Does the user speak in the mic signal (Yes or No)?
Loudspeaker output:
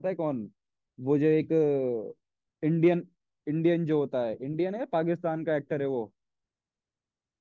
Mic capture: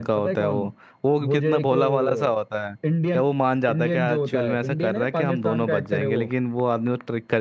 Yes